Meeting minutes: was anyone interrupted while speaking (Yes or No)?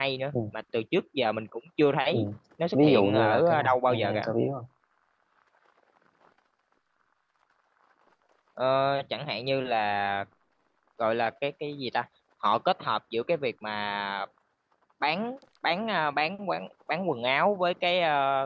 Yes